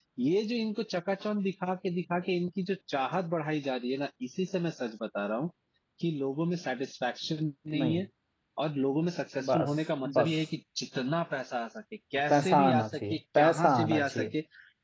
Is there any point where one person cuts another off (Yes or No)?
Yes